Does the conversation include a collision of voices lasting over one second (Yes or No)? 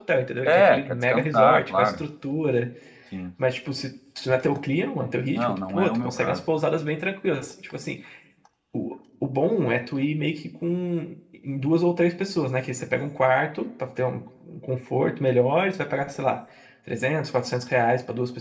Yes